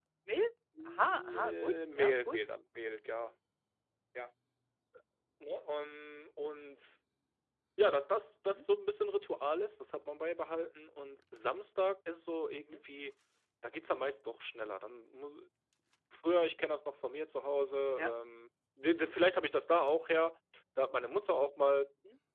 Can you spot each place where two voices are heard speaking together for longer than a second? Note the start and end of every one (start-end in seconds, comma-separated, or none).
1.0-2.4